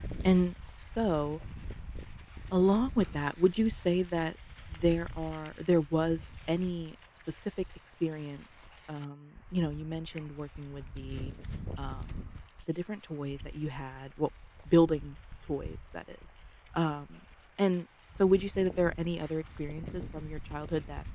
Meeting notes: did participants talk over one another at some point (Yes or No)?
No